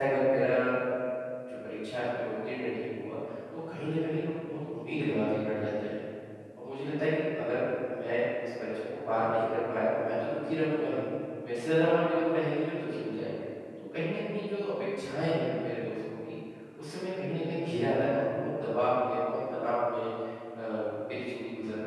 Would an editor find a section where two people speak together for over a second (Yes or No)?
No